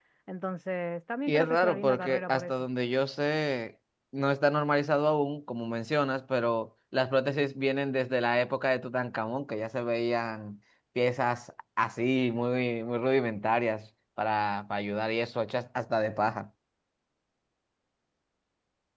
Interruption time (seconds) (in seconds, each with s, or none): 1.3 s